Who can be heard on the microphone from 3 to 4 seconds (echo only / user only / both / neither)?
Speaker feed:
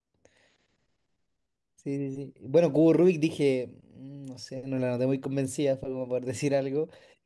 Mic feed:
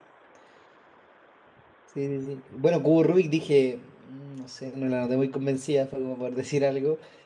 echo only